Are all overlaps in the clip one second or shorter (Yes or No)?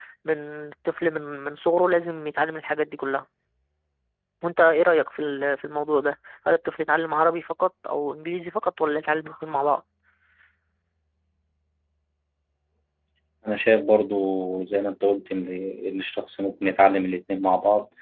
Yes